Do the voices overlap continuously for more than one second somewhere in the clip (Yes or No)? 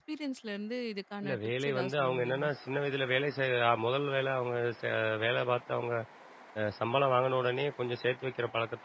Yes